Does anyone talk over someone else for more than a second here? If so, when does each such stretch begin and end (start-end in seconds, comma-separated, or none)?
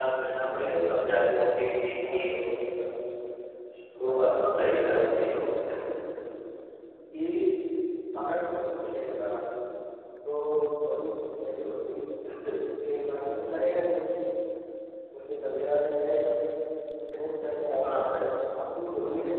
4.0-5.3